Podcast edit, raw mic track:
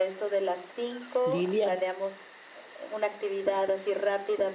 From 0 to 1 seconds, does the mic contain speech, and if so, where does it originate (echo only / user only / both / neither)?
echo only